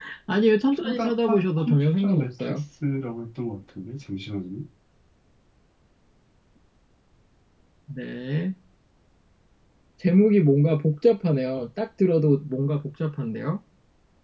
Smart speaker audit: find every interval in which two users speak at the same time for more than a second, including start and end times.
0.8-2.6

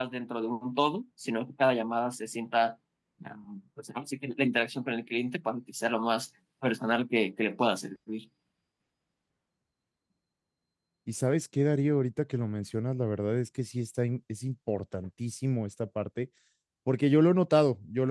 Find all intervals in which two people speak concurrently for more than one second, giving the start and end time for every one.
none

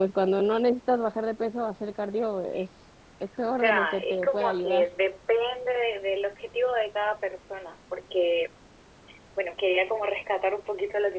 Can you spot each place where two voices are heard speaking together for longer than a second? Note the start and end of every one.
3.6-4.8

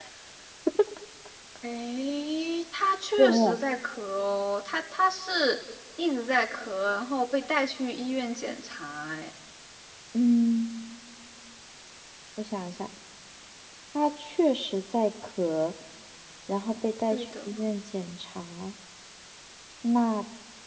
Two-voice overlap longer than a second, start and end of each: none

